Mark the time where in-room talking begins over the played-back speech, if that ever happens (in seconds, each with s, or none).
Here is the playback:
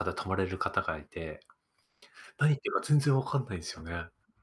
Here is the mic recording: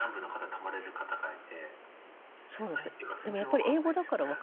2.5 s